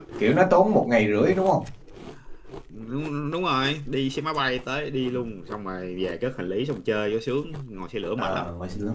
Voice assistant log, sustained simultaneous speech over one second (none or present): none